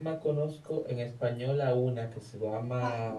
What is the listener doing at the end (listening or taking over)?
listening